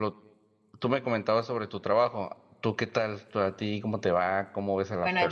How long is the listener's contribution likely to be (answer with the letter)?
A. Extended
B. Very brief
A